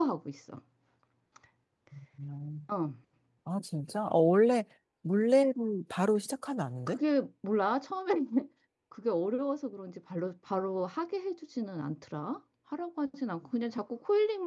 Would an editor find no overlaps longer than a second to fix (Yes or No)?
Yes